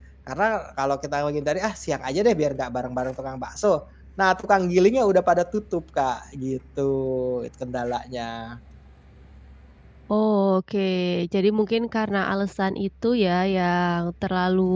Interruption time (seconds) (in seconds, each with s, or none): none